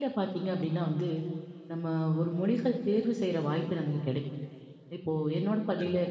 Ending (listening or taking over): listening